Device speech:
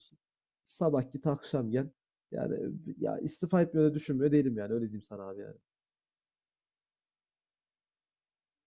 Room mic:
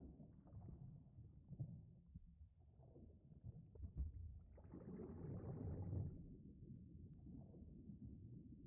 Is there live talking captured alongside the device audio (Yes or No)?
No